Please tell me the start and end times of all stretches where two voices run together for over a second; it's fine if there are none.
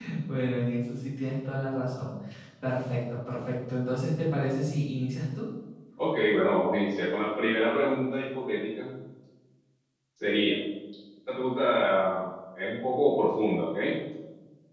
none

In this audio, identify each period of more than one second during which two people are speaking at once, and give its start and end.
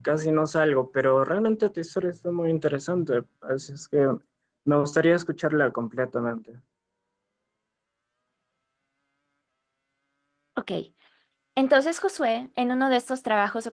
none

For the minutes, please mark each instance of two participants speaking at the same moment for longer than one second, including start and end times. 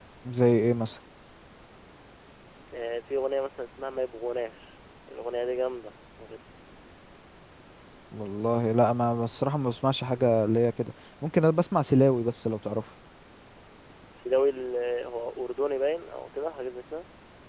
none

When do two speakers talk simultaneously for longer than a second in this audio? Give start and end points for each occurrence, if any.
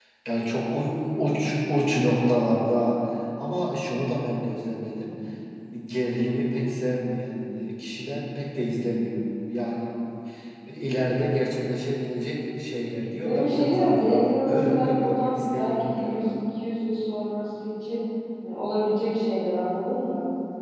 13.2-16.3

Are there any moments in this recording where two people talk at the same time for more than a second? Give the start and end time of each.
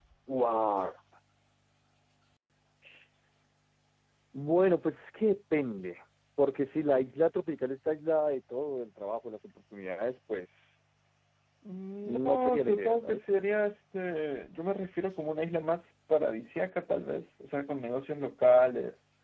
12.0-13.2

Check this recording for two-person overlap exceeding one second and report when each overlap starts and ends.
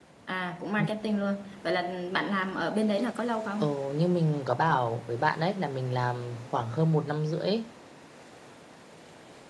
none

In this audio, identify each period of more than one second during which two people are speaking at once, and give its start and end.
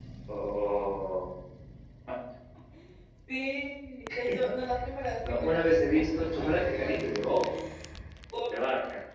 5.3-7.2

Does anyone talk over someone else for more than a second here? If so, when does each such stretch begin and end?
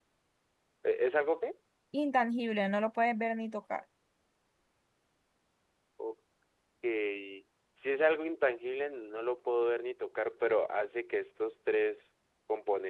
none

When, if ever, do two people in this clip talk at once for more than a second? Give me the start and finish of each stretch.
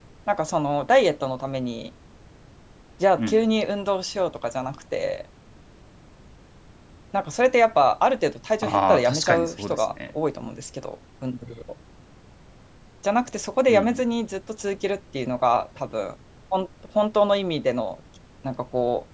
8.6-10.1

